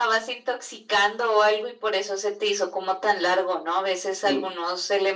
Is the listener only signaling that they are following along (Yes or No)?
Yes